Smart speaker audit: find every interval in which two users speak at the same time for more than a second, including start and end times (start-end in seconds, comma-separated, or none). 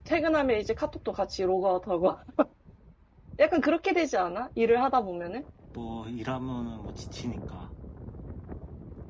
none